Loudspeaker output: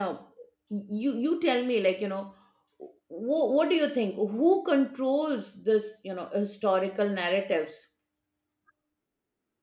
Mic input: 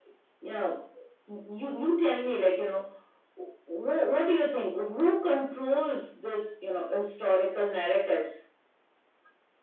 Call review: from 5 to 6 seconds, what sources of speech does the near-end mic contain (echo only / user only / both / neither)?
echo only